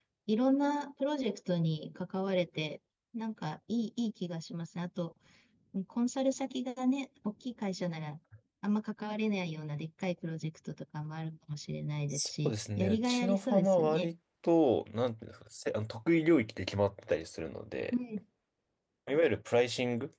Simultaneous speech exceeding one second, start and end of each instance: 12.1-14.1

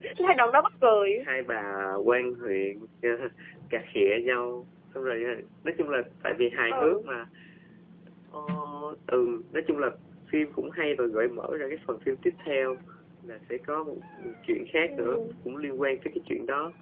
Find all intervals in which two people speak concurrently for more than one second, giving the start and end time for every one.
none

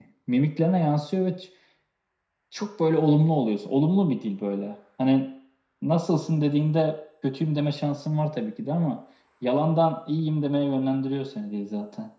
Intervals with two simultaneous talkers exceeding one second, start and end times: none

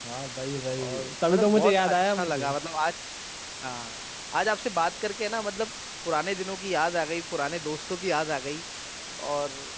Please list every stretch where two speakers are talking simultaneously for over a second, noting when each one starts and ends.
0.8-2.5

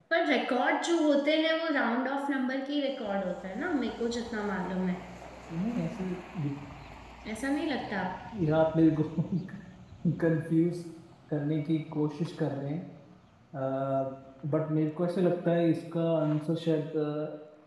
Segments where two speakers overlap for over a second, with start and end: none

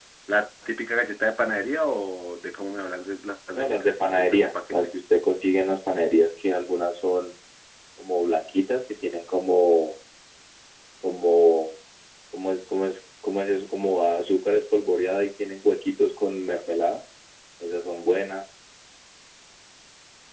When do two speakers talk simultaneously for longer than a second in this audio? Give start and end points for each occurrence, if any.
3.6-4.8

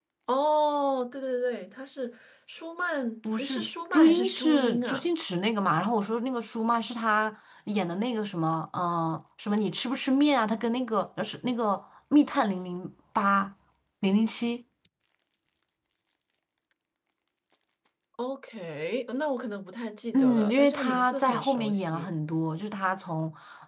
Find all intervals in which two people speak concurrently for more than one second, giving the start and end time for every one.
3.4-5.1, 20.1-22.1

